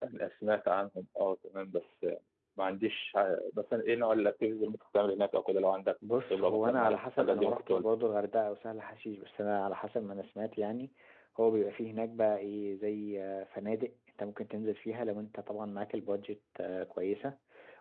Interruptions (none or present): present